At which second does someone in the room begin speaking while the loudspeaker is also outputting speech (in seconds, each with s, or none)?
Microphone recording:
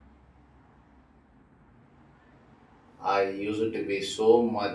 3.0 s